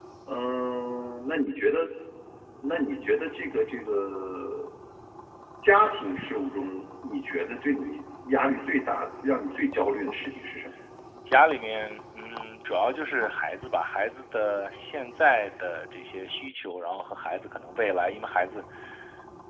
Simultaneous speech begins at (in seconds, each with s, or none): none